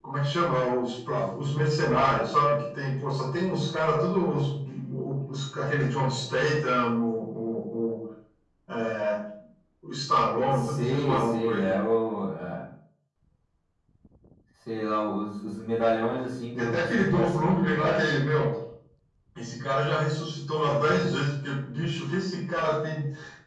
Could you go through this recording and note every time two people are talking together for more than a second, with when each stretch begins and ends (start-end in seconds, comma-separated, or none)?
10.5-11.8, 16.5-18.0